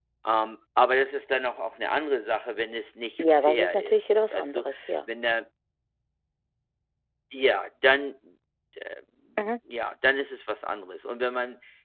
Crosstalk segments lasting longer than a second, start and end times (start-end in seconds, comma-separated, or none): 3.4-4.6